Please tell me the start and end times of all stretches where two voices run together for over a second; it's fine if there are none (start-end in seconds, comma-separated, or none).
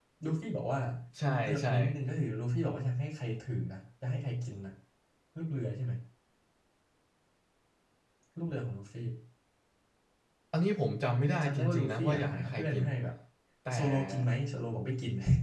11.4-12.8